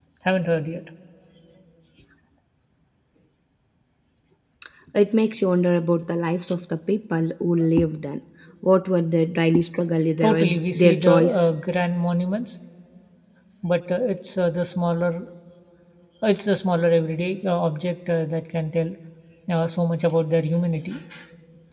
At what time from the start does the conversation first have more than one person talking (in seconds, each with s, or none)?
10.2 s